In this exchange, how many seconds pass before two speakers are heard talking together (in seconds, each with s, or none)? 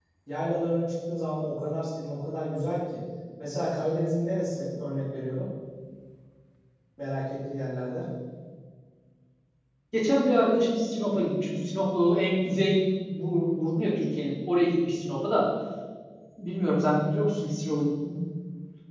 none